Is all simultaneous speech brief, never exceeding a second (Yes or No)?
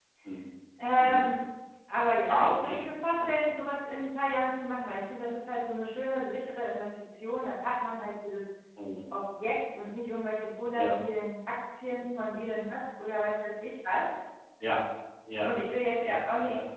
No